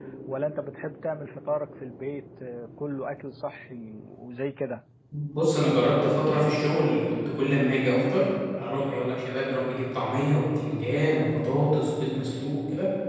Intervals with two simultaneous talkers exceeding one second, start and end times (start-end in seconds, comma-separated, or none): none